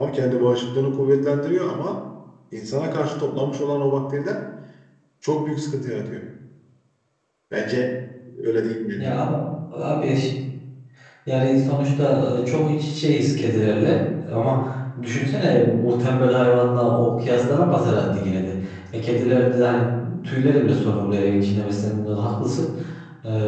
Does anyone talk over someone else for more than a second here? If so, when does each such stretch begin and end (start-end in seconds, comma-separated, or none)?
none